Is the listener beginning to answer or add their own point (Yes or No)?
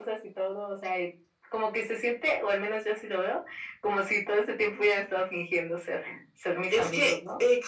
Yes